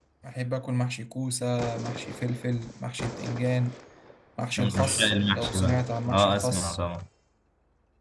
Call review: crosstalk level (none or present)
present